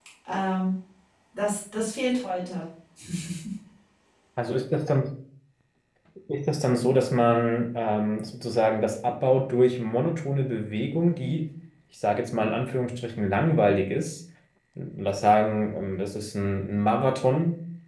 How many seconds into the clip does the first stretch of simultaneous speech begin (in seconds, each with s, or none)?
none